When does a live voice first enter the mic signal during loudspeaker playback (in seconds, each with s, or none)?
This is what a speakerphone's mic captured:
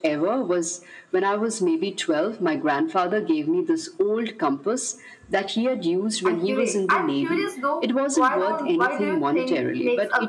6.2 s